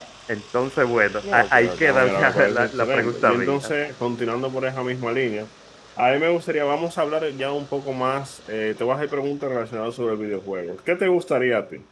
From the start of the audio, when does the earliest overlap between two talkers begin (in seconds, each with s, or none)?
1.2 s